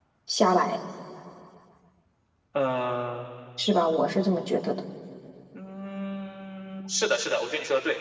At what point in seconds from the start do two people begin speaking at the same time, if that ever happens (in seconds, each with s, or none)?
none